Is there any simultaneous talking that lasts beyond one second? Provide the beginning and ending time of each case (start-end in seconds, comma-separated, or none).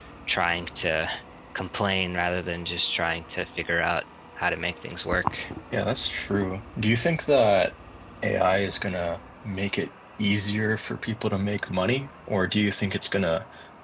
none